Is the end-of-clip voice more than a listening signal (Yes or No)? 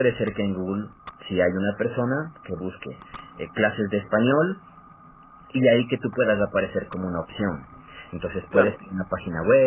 No